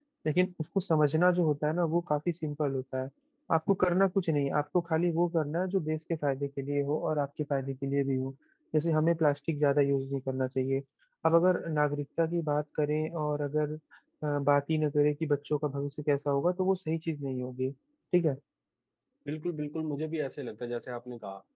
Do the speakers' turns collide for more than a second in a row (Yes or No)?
No